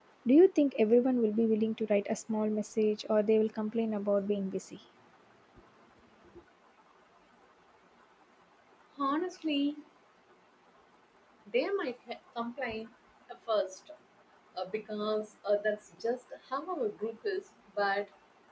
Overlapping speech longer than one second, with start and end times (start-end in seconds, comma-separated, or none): none